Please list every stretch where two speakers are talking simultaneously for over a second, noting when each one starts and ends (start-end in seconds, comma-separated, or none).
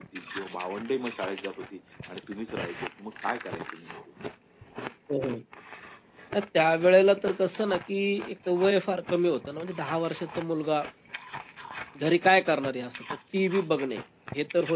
none